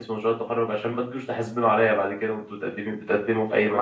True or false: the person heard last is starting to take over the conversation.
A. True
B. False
A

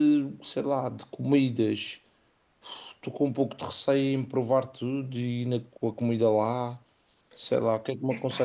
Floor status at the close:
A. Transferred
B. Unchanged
B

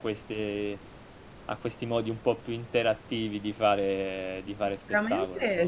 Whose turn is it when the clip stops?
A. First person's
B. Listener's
B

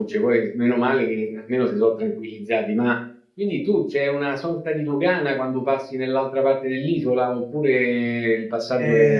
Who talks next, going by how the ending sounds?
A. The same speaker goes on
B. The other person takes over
B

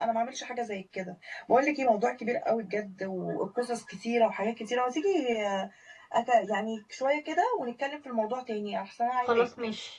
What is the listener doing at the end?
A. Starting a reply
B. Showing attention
A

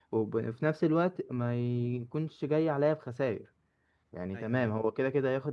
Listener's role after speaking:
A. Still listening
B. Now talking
A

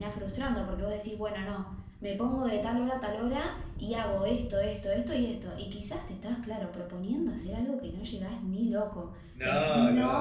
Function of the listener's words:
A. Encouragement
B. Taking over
A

